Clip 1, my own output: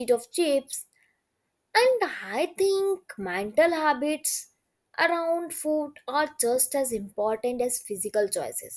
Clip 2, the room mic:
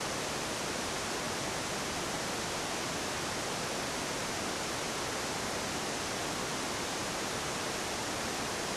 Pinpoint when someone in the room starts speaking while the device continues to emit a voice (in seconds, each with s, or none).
none